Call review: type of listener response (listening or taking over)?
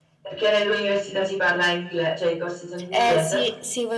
taking over